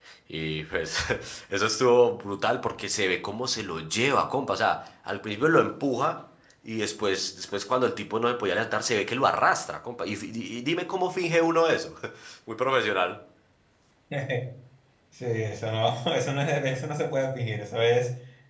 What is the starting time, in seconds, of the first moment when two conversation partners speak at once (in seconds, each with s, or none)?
none